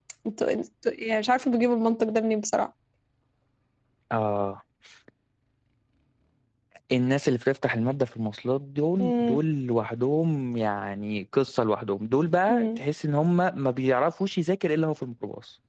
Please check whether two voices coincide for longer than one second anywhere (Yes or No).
No